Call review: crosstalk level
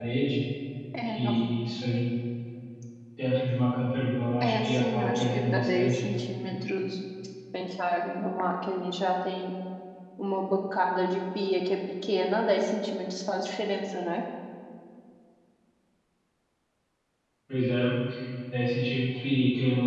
present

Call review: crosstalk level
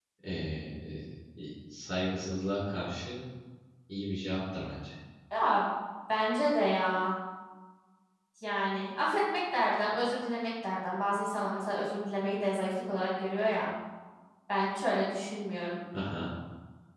none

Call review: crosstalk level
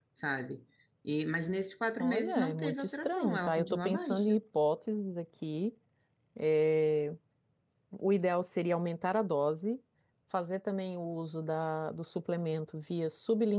present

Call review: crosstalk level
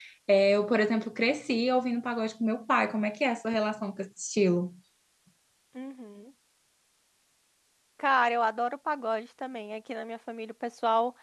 none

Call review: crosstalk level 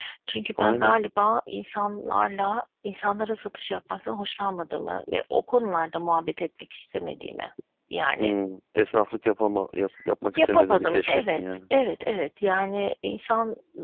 present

